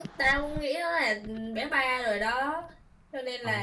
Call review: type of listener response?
taking over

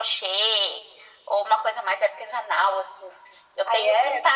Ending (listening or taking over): listening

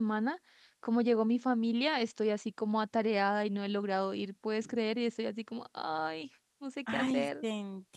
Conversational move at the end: taking over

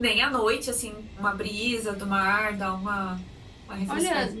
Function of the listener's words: taking over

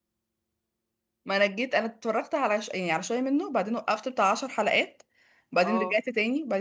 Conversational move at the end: listening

